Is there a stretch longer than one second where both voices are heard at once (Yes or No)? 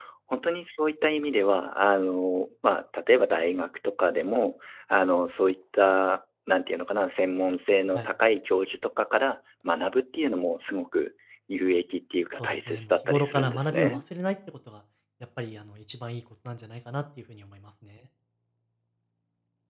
Yes